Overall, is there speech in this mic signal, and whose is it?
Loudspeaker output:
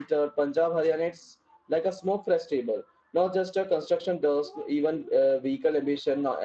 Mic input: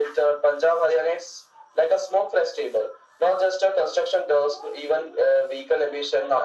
echo only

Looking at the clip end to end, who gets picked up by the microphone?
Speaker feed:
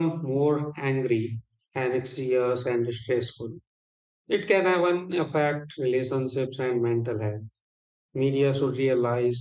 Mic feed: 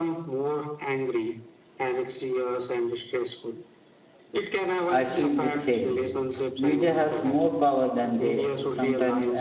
both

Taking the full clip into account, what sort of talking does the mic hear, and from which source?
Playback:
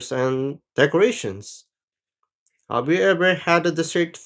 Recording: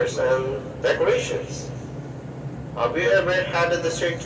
echo only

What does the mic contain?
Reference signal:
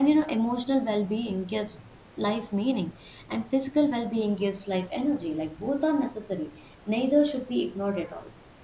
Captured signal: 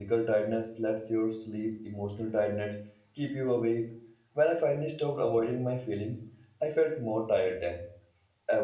user only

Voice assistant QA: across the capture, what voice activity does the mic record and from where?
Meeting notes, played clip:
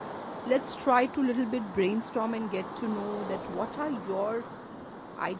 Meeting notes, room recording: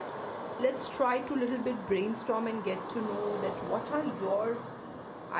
echo only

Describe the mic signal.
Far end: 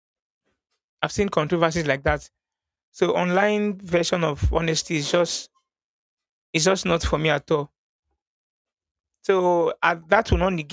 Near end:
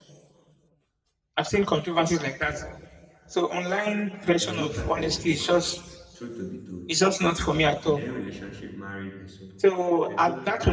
both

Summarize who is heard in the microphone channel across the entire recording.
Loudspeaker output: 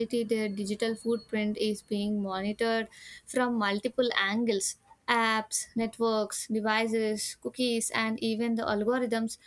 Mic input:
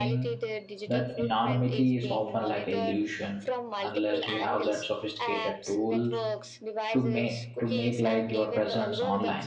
both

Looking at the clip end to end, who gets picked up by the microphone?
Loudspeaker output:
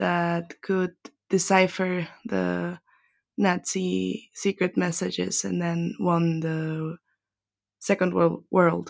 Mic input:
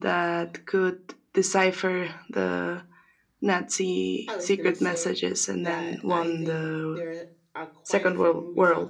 both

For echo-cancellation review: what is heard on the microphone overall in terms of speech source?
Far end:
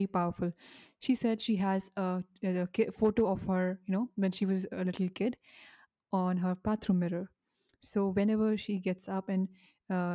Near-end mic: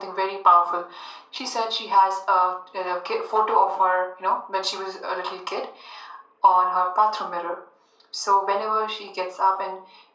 echo only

